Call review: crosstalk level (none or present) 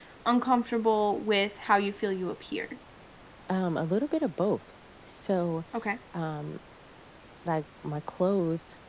none